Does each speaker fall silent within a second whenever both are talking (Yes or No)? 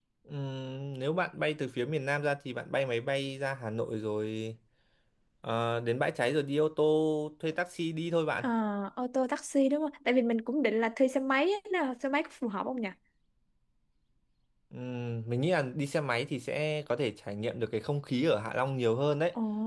Yes